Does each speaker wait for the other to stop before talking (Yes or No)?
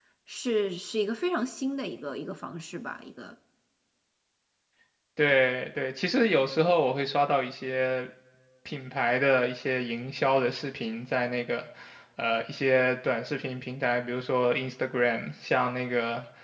Yes